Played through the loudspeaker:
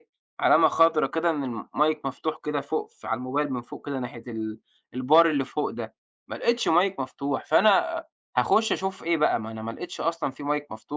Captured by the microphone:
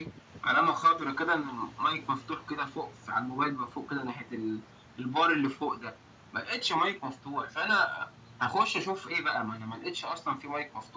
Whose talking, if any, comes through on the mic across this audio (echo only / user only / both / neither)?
echo only